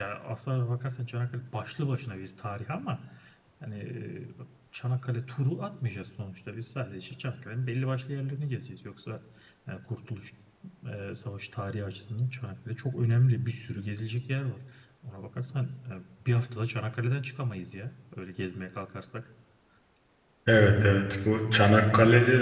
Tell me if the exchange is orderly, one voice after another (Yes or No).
Yes